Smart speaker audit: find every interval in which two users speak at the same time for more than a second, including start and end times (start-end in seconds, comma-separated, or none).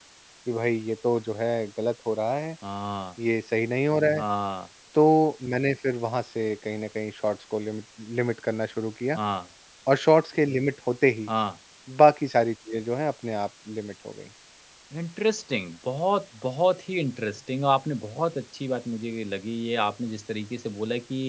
none